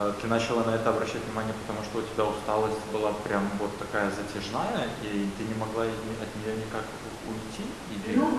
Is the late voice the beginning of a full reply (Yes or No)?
Yes